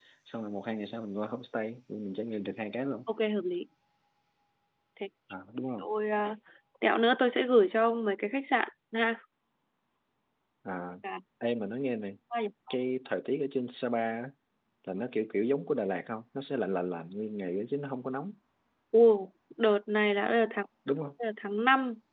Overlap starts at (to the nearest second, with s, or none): none